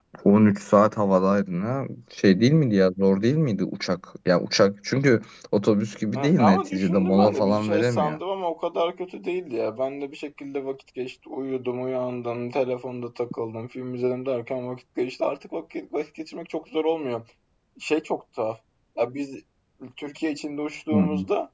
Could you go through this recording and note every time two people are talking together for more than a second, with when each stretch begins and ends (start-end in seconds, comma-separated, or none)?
6.2-8.2